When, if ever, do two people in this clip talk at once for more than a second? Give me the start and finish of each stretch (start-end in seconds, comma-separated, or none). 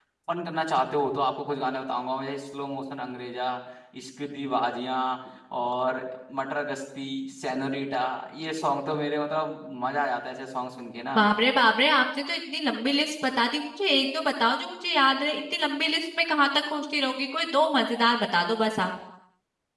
none